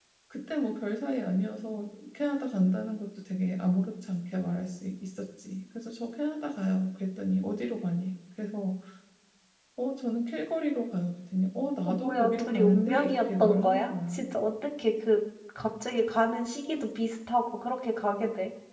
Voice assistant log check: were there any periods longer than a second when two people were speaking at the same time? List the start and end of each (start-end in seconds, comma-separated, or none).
11.8-14.2